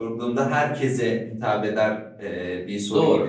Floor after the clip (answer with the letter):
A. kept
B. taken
A